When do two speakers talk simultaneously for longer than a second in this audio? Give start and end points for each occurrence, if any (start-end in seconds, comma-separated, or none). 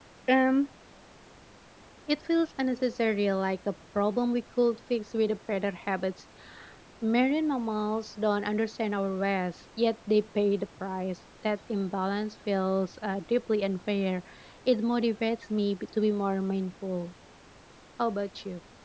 none